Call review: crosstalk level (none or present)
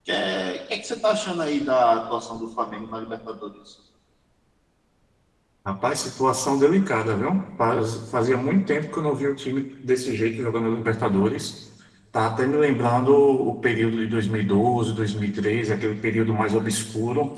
none